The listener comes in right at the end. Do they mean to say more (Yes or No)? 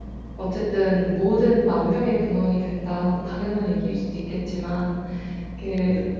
No